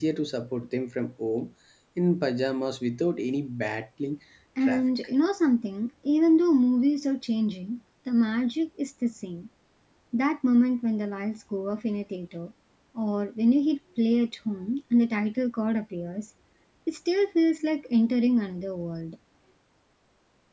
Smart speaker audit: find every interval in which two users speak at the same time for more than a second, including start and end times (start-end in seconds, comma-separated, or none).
none